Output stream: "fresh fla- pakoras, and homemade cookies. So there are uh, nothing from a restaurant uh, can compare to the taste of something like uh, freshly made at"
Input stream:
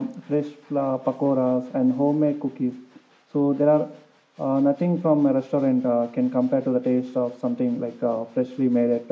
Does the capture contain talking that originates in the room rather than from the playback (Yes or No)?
No